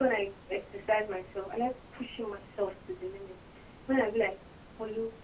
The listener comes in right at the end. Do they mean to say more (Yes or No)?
No